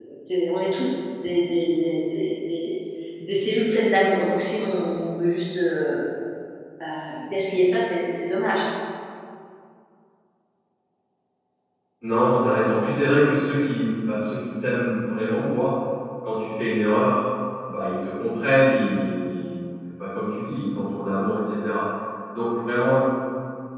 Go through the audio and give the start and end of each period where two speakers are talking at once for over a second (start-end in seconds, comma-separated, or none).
none